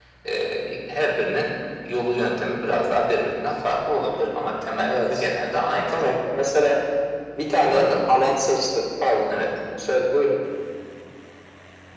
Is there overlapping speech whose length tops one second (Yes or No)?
No